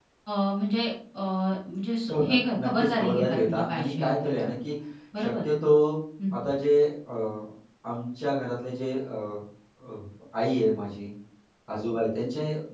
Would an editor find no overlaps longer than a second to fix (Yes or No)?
No